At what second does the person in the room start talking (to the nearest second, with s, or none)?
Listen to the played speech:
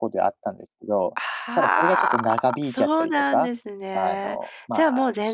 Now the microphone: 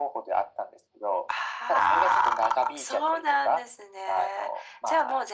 none